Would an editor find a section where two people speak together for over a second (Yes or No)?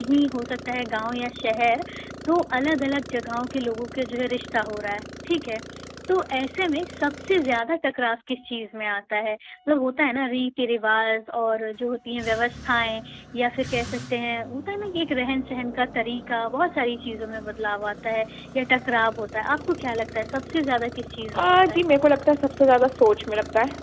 No